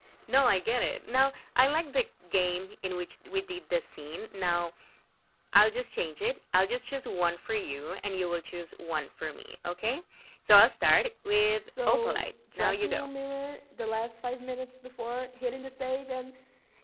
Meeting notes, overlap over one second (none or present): present